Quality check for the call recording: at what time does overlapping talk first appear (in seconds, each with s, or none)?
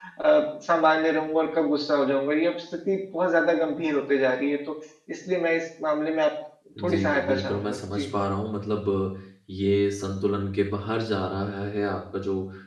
6.8 s